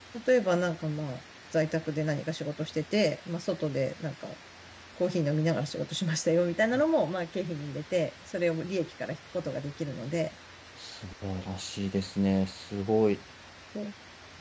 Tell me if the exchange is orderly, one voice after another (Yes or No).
Yes